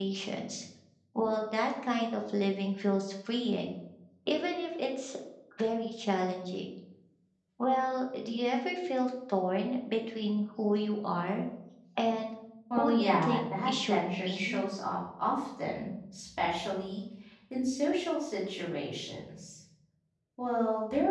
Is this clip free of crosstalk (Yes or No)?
No